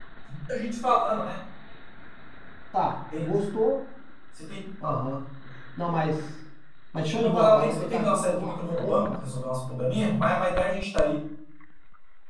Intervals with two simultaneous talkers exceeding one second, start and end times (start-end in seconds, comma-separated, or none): 7.2-9.3